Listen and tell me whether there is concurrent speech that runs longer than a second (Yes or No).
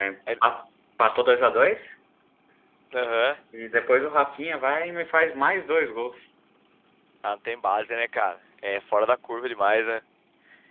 No